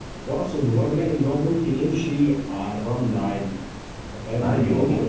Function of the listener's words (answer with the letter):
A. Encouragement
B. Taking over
B